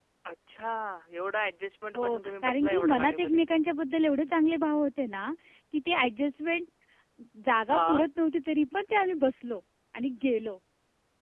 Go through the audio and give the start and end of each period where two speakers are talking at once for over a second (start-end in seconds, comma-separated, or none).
1.9-3.4